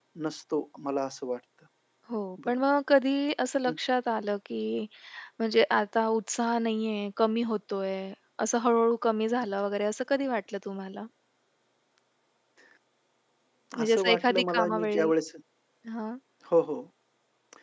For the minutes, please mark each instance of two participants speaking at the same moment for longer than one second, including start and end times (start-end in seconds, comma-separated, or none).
13.8-15.1